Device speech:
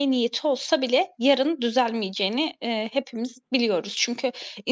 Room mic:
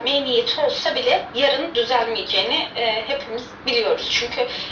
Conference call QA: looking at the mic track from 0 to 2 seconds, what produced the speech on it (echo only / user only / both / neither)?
echo only